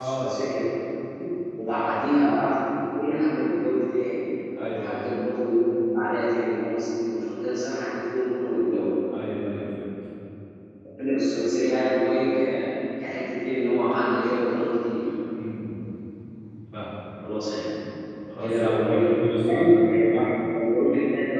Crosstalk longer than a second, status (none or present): present